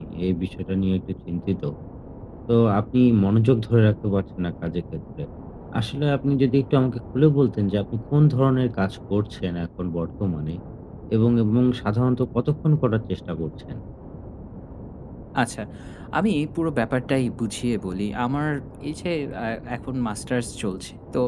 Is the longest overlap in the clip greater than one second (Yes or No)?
No